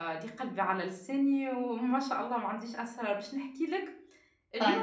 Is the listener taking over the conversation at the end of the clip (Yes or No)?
No